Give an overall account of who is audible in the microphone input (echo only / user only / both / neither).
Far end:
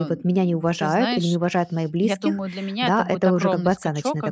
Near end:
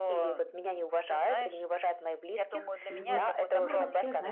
both